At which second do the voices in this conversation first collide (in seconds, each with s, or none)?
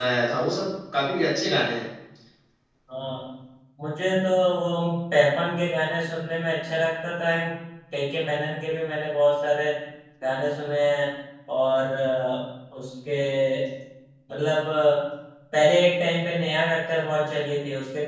none